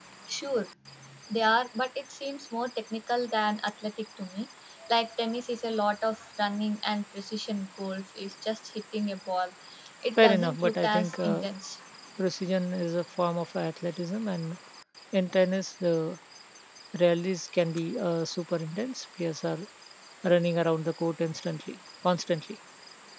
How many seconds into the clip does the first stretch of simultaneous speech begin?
10.2 s

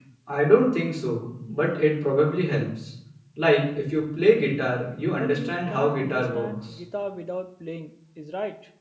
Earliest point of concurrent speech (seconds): 5.1 s

